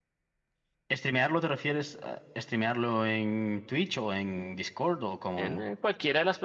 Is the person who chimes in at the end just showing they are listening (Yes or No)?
No